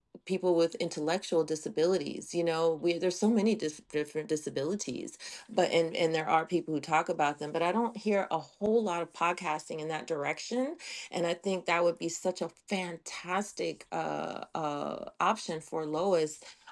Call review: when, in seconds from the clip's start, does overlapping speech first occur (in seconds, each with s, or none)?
none